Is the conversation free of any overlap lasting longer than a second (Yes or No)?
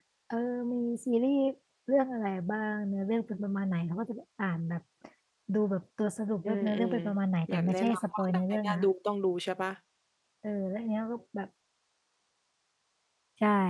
No